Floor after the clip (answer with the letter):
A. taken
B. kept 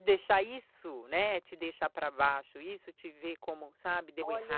A